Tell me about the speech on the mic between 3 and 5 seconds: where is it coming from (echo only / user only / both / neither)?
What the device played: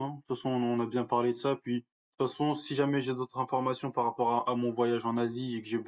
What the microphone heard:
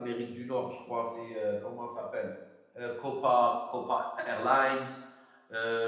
user only